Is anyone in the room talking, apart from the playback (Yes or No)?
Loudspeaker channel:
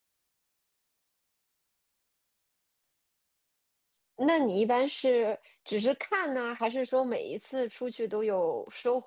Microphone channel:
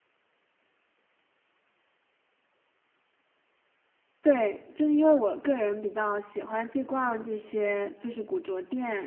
Yes